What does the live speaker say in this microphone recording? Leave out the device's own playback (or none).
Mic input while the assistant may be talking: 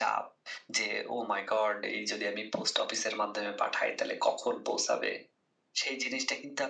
none